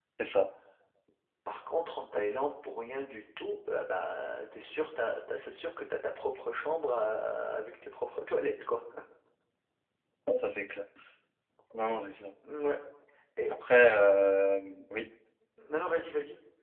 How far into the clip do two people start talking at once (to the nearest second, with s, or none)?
none